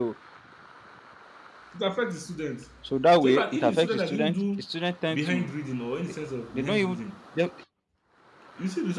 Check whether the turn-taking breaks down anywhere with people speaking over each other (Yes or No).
Yes